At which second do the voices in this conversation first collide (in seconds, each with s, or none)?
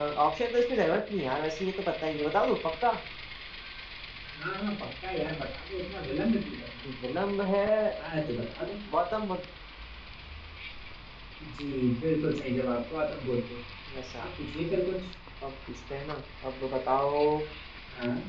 none